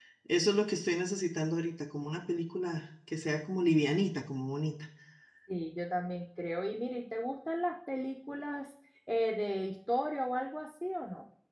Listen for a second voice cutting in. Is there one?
No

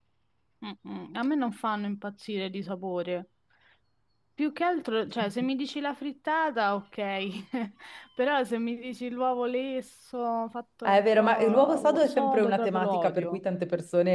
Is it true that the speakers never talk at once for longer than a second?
No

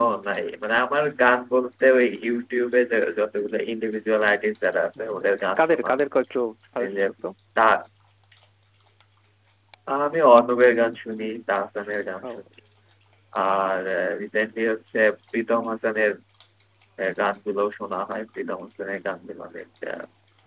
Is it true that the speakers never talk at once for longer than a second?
Yes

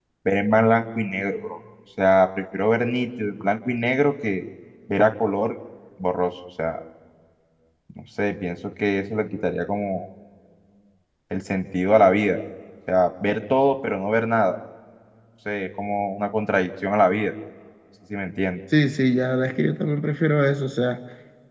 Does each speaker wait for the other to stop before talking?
Yes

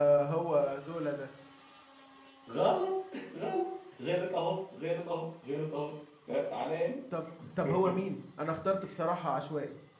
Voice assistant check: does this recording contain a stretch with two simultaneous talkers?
No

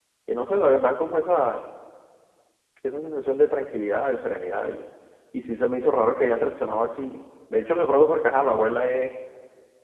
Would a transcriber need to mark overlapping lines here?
No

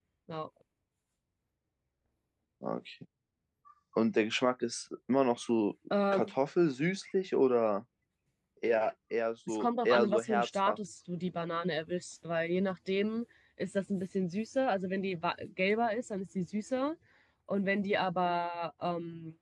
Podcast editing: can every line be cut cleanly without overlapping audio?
No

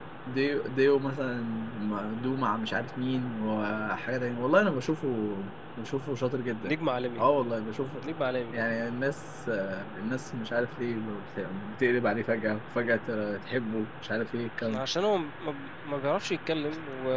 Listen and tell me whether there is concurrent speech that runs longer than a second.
No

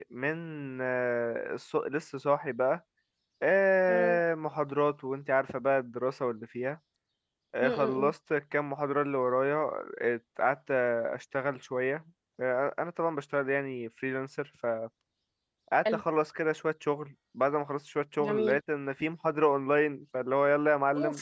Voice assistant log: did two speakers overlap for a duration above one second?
No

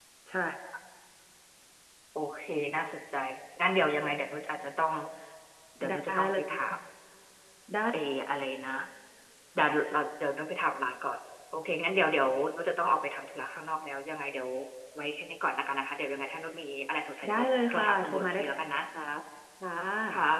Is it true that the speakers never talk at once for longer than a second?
No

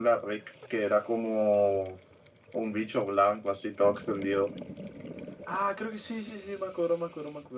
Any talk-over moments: No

